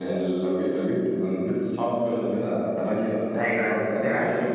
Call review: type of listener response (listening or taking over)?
listening